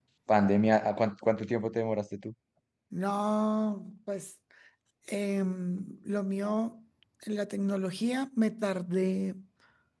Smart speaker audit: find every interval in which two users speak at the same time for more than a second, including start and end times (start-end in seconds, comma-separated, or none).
none